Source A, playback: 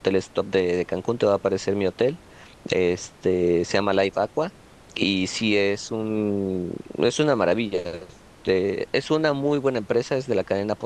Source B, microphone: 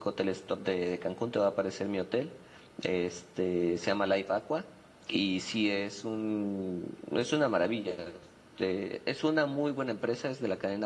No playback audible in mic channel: No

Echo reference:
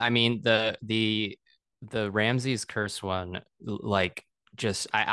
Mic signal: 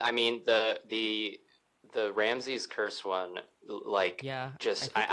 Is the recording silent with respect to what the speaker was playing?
No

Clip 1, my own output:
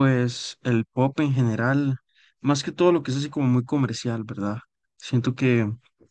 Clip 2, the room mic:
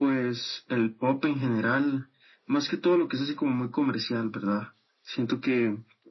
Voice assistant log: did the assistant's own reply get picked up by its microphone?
Yes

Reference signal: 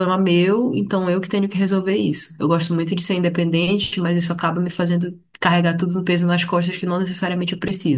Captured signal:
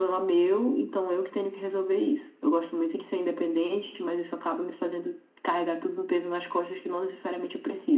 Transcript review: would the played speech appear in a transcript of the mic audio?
Yes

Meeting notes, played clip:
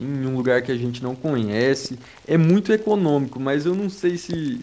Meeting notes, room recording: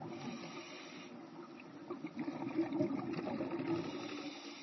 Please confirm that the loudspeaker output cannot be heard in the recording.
Yes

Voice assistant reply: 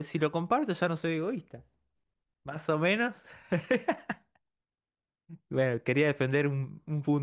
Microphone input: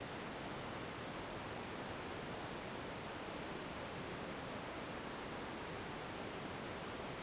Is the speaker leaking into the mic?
No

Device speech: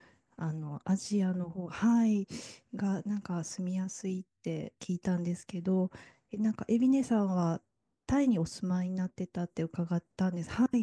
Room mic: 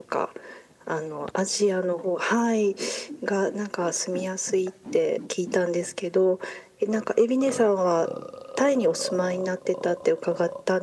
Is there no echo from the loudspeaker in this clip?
No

